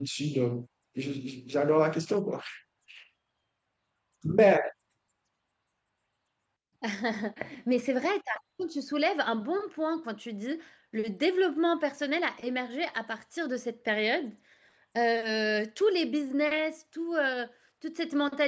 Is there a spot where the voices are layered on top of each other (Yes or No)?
No